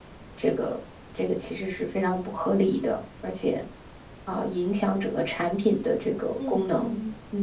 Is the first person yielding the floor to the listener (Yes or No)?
Yes